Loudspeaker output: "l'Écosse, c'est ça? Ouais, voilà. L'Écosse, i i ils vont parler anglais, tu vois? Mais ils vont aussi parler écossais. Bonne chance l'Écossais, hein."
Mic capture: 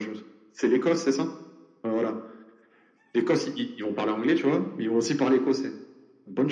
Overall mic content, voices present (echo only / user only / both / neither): echo only